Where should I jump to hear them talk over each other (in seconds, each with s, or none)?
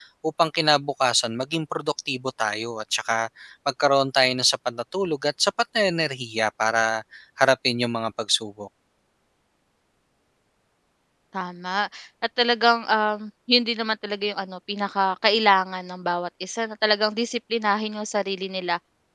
none